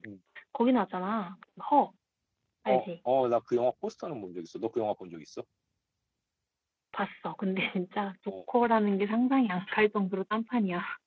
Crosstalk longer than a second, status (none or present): none